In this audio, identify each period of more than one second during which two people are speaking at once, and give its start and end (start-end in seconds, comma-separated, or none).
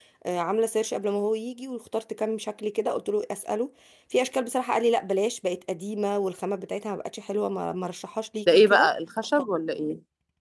none